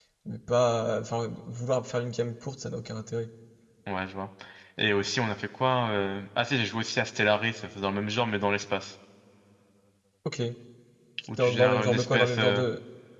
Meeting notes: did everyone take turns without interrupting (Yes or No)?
No